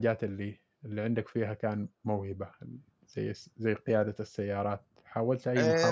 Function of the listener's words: taking over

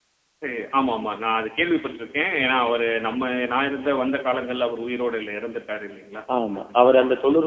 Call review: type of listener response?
taking over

